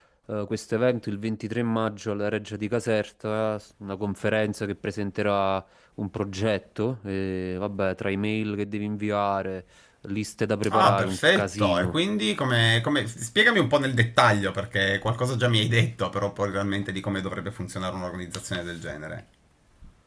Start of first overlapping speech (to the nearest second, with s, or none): 11 s